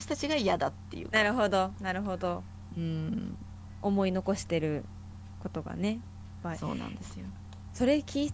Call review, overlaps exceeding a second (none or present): none